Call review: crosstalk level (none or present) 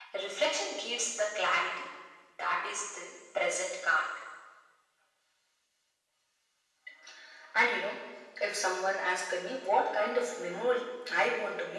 none